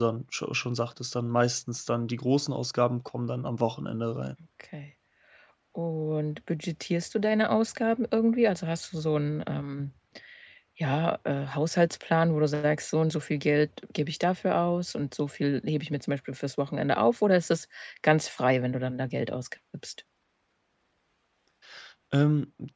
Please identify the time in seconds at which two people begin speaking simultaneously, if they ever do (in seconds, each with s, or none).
none